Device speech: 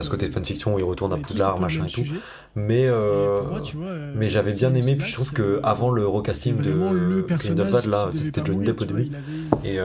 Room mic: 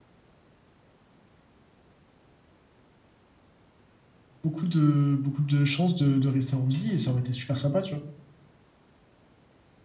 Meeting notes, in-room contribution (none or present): present